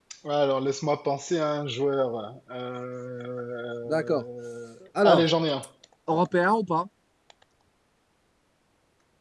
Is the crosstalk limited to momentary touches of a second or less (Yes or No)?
Yes